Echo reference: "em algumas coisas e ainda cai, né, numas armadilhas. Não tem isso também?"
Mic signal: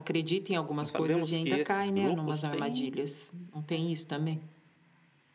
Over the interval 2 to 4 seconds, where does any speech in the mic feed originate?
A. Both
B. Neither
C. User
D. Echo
A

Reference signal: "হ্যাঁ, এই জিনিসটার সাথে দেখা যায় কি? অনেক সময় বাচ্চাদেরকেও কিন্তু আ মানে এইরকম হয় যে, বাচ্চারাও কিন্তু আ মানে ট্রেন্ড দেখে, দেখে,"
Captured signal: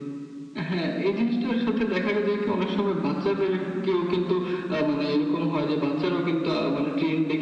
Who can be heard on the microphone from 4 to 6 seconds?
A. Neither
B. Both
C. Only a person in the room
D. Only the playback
D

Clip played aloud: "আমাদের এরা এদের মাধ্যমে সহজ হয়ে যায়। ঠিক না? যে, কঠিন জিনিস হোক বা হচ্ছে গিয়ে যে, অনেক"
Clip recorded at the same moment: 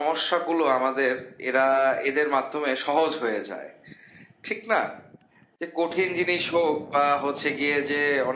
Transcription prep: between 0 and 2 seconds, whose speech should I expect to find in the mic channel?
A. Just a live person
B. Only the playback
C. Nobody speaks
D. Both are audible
B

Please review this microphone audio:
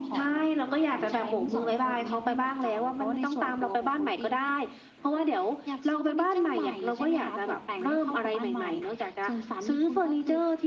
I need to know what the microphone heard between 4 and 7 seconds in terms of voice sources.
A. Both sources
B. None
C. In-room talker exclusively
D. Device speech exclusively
D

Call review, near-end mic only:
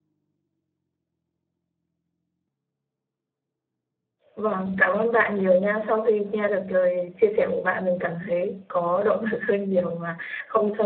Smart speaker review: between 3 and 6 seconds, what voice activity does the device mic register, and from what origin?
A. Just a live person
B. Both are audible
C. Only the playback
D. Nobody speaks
A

